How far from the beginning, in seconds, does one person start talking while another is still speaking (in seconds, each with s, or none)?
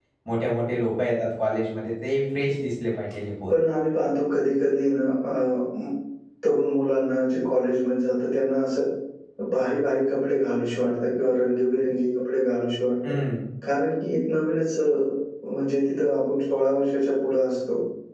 none